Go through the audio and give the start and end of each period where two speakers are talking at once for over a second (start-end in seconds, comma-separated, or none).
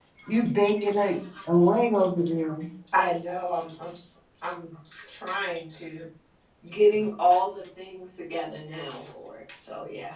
none